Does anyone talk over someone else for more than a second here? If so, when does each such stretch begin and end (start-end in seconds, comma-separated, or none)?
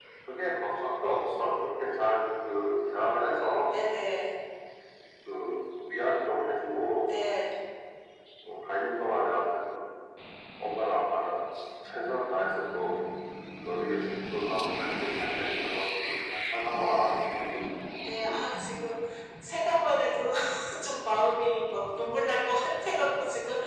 none